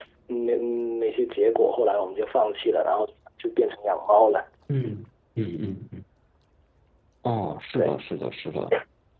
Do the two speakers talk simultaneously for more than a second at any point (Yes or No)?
No